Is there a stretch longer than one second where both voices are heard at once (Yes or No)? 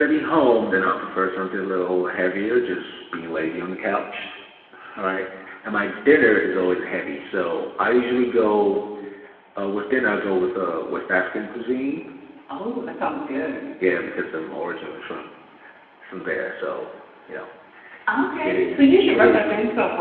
Yes